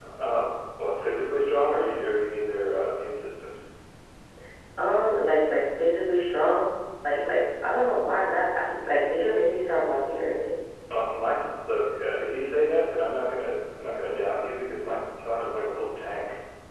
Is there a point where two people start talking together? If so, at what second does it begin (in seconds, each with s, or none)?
none